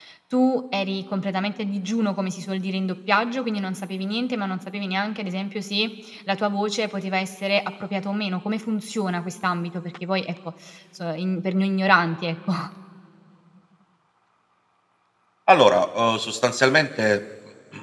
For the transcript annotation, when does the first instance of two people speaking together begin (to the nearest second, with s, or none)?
none